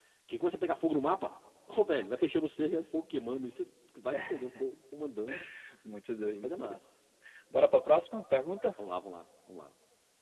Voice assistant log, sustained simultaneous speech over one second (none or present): none